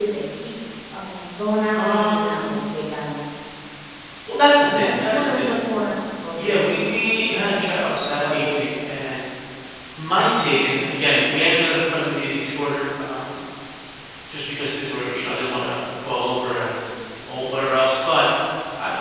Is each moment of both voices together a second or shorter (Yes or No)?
No